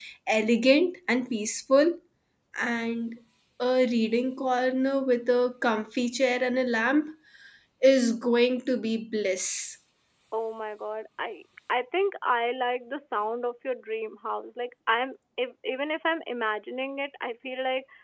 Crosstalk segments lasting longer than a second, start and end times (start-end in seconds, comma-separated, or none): none